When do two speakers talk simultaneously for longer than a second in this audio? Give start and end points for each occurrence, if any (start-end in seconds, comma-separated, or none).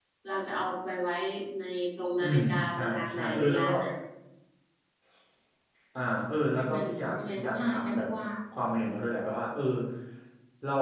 2.2-3.7, 6.5-8.0